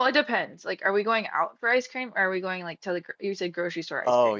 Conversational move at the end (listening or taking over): taking over